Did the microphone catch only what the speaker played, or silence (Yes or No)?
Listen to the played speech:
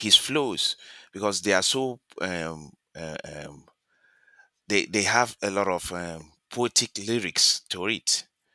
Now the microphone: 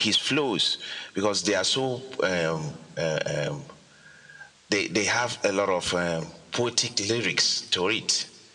Yes